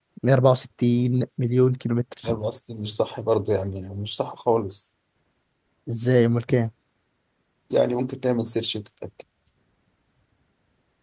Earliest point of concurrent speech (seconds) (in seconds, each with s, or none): none